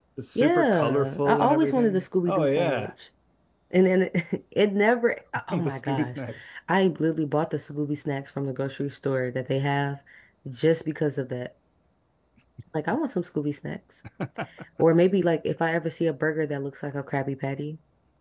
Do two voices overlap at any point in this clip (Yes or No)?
Yes